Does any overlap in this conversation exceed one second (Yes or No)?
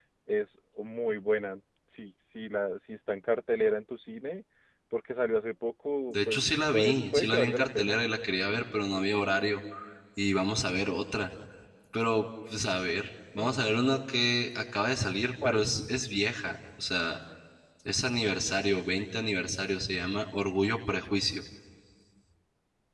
Yes